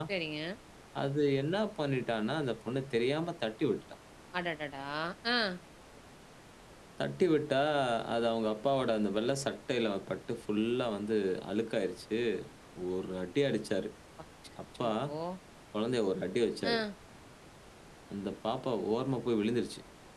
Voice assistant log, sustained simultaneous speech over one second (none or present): none